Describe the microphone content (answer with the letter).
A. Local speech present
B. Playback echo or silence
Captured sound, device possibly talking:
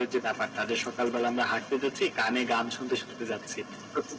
B